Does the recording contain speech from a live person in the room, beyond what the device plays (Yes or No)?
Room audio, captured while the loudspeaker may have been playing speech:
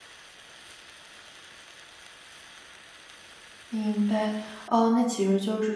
Yes